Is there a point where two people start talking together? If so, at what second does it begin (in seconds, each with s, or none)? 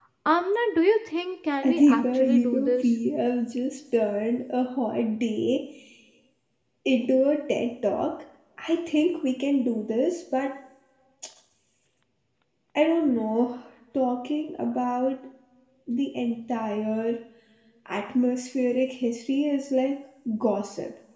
1.6 s